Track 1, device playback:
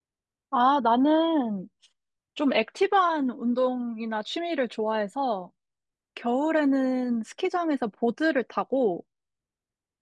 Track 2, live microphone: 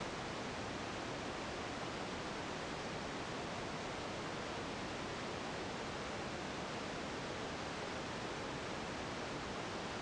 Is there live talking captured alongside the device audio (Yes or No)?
No